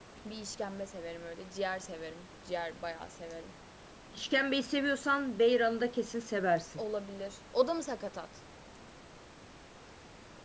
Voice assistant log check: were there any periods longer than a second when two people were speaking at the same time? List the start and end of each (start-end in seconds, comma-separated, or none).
none